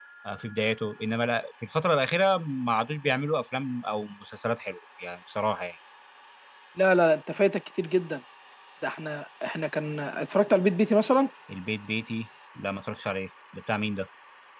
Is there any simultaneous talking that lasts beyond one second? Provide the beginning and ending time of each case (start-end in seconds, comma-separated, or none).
none